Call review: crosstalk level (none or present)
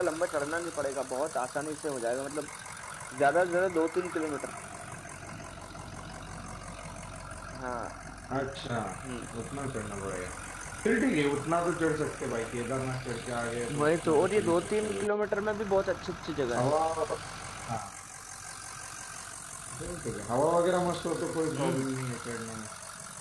present